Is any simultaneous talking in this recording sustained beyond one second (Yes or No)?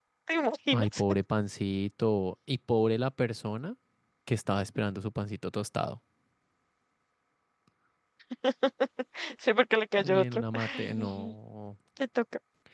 Yes